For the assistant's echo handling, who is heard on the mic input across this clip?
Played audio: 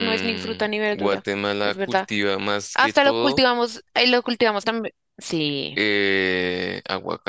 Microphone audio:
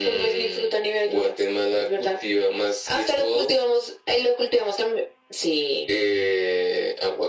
echo only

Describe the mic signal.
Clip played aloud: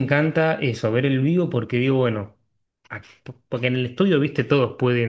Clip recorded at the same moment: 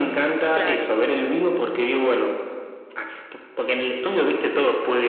both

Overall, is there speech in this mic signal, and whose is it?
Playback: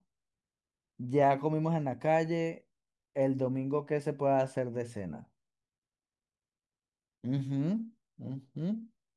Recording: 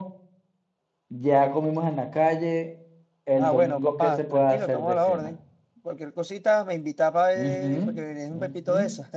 both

